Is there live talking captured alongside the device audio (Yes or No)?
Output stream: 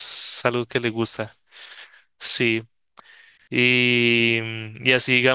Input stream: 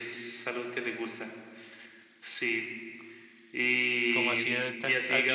Yes